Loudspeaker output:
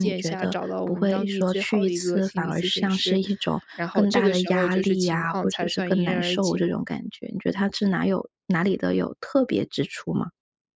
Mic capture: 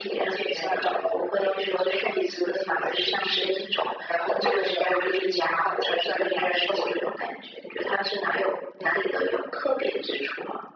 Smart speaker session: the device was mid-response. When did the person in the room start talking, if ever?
none

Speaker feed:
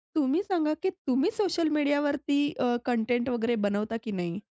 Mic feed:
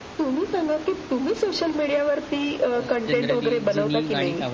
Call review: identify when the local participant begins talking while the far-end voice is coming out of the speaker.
2.8 s

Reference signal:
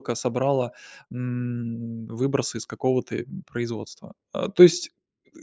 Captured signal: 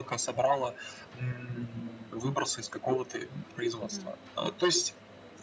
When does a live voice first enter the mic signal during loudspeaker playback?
3.8 s

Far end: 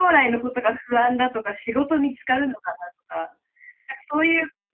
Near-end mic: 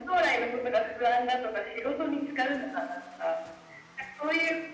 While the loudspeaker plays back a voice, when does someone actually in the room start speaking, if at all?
none

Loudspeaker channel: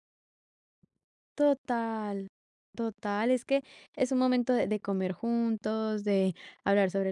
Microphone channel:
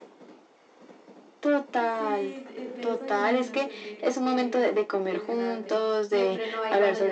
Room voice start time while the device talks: 1.8 s

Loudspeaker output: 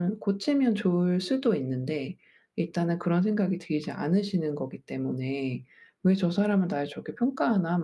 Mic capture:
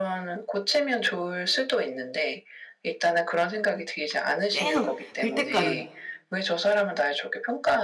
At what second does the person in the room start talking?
4.5 s

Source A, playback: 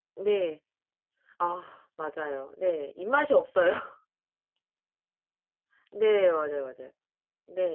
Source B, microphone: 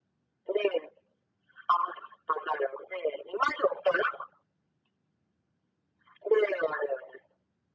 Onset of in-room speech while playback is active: none

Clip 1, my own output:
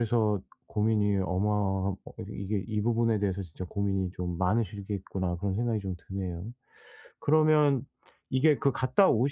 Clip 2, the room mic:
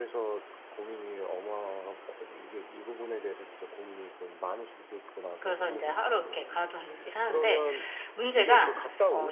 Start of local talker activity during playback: 5.4 s

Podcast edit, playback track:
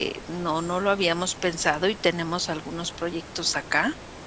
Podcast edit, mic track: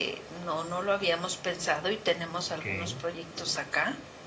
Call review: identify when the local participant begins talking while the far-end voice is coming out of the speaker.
2.5 s

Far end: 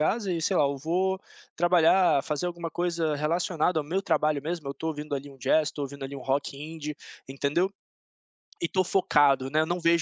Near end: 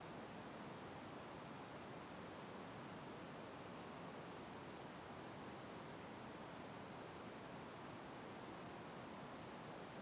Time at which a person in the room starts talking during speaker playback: none

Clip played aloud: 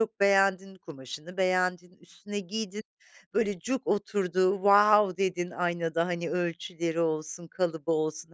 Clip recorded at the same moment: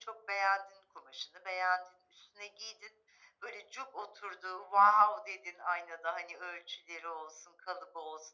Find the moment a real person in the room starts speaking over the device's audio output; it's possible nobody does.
none

